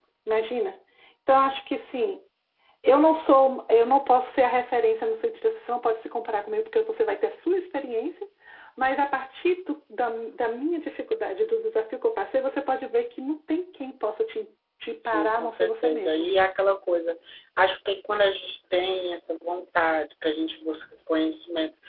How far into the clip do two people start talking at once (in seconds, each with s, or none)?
15.0 s